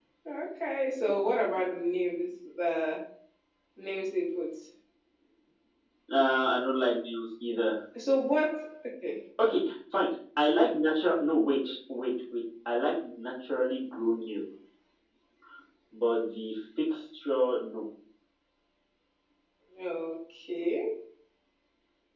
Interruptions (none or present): none